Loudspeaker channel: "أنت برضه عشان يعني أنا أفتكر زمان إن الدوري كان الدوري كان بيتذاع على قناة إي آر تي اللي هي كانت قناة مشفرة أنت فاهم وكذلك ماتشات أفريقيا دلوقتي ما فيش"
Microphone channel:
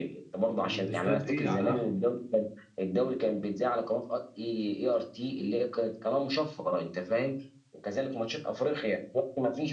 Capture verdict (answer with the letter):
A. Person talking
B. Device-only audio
A